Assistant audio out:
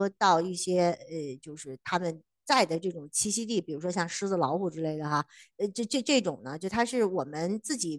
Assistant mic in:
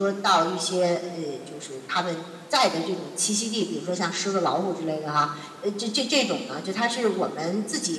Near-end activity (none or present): none